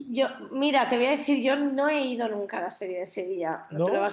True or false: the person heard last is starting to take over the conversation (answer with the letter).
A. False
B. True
A